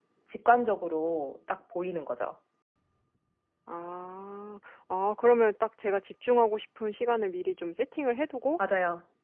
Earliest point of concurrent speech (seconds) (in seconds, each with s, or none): none